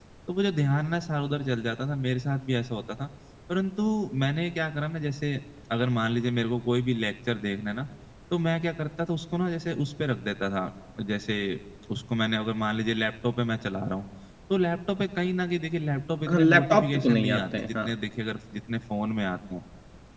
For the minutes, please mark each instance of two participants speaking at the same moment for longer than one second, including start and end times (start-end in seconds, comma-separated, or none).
16.3-17.9